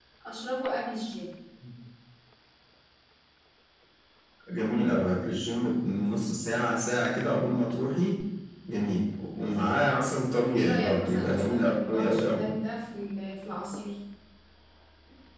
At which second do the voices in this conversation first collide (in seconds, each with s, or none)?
10.5 s